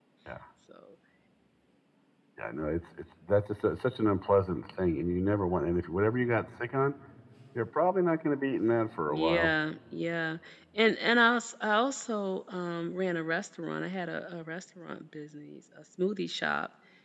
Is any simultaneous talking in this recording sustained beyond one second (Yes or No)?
No